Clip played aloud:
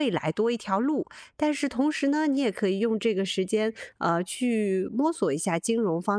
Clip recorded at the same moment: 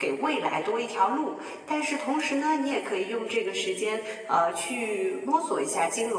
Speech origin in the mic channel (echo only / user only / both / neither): echo only